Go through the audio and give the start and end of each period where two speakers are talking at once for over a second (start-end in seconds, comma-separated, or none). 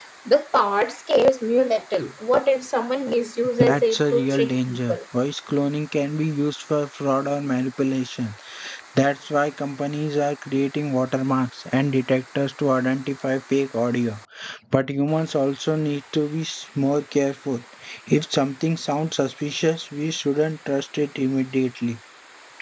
3.6-5.0